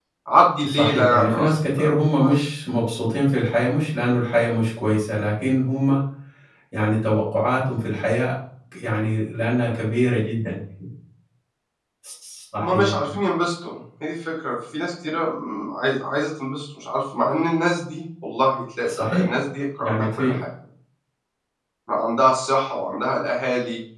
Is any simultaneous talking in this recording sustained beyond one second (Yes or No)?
Yes